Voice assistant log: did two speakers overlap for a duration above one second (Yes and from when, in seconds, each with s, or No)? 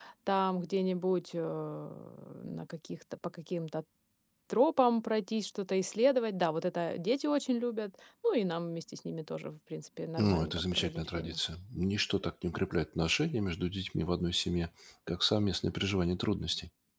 Yes, from 10.2 s